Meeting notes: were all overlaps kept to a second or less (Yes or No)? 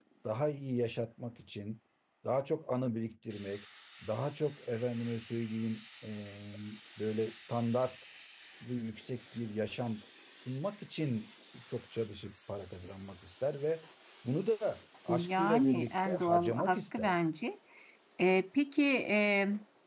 No